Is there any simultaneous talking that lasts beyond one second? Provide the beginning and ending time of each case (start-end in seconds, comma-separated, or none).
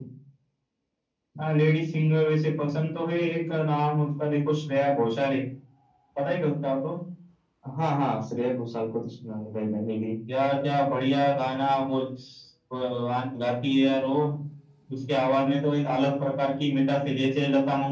none